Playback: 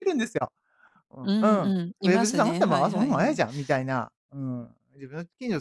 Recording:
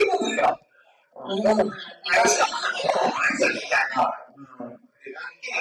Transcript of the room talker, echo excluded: none

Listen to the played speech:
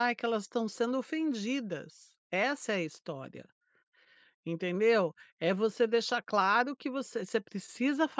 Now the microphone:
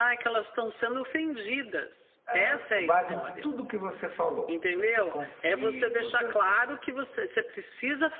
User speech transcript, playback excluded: hã, com base em tudo o que você falou, nesses conflitos, essas,

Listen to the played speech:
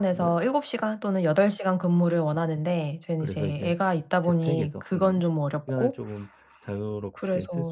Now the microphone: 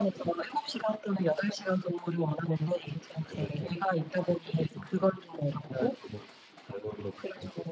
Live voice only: none

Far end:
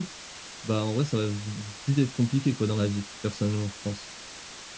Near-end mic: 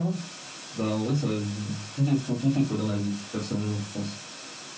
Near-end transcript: none

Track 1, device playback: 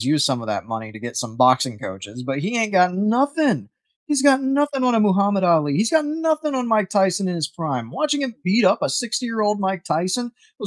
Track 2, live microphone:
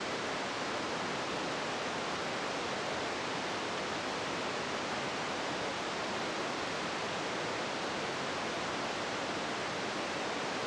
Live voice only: none

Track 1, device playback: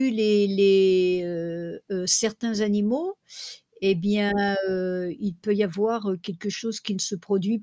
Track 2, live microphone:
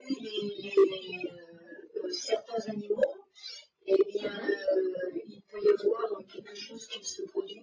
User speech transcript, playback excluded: Mmh mh.

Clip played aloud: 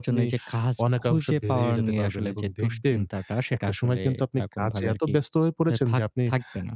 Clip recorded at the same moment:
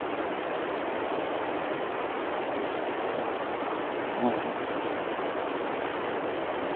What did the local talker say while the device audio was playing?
হ্যাঁ, হ্যাঁ, হ্যাঁ।

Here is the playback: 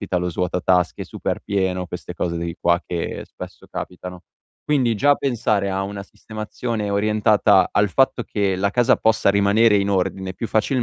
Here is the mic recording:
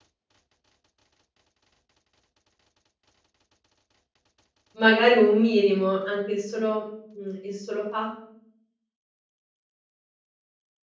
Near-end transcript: magari un minimo, anche il solo mhmm, il solo fat

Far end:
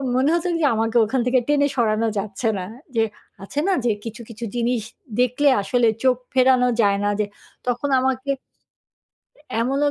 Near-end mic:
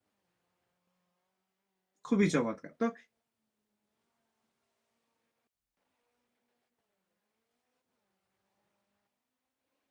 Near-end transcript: খুবই চমৎকার! তো

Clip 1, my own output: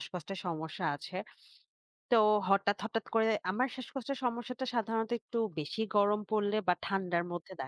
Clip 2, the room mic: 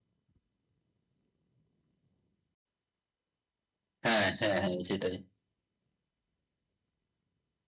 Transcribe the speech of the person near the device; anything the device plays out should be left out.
হ্যাঁ, হ্যাঁ, হ্যাঁ, সেটাই।

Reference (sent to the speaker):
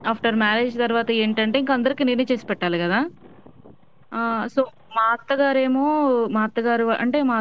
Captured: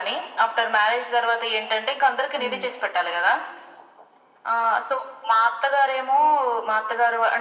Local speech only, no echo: అవును.

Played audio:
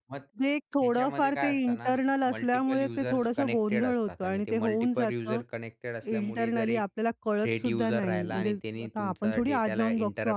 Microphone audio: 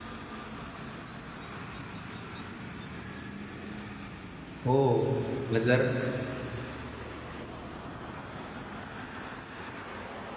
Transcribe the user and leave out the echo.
हो. मग जर

